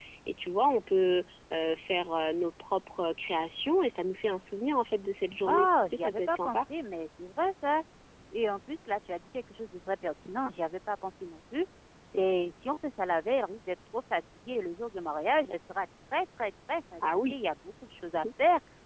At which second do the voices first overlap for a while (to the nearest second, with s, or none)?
5 s